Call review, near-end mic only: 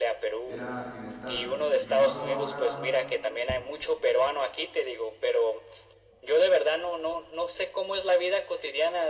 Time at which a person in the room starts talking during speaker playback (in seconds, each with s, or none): 0.4 s